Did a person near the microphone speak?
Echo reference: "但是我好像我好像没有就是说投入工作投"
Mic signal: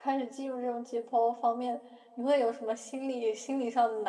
Yes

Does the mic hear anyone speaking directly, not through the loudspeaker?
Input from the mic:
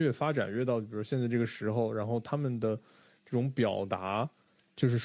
Yes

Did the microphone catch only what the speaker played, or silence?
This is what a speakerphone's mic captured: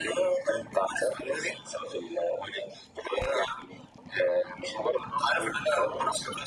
Yes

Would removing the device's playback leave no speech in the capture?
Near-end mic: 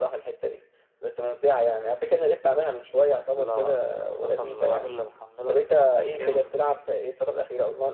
No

